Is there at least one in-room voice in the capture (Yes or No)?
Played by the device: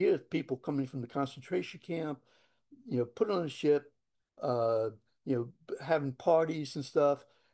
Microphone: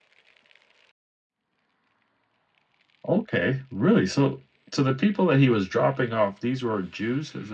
Yes